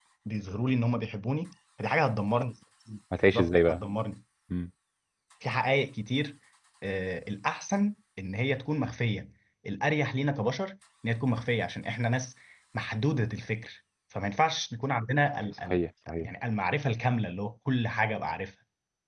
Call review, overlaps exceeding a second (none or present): none